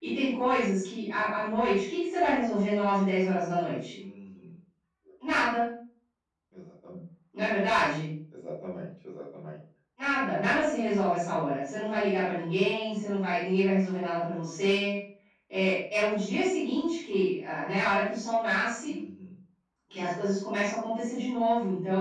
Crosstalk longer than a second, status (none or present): none